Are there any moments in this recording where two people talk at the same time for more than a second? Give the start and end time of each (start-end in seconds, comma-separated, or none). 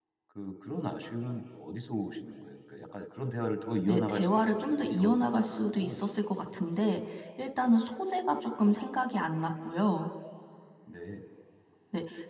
3.9-6.1